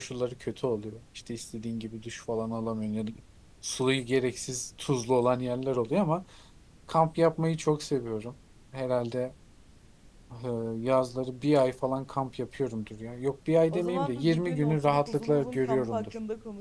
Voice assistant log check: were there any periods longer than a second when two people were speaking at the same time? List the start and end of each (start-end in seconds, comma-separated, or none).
13.7-16.1